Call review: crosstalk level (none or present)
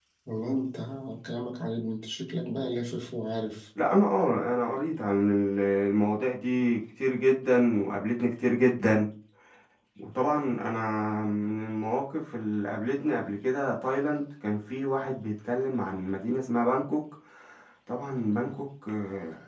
none